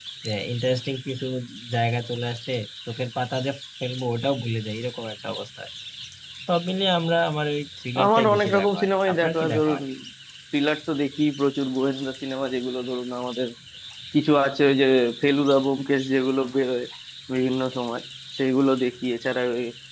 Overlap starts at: 8.0 s

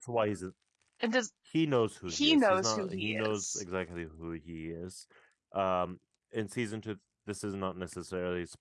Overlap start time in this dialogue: 2.1 s

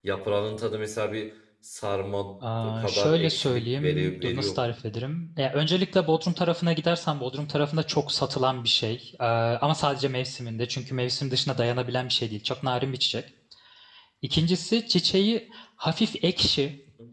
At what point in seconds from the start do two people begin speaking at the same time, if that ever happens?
2.8 s

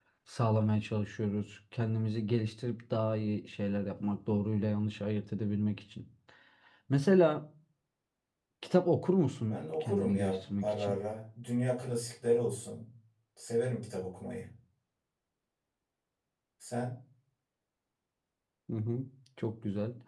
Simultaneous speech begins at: 9.5 s

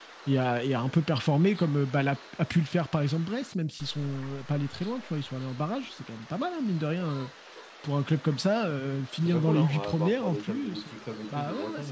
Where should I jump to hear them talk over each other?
9.2 s

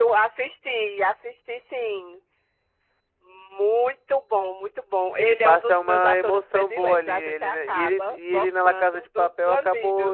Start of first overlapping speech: 5.2 s

